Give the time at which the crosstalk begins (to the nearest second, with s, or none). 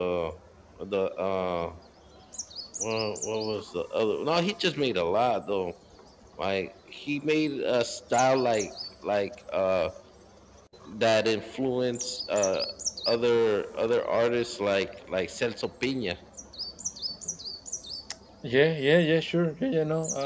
none